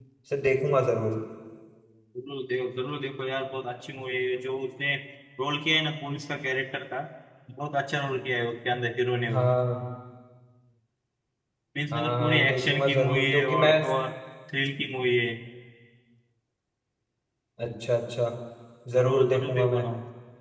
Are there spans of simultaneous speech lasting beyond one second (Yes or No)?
Yes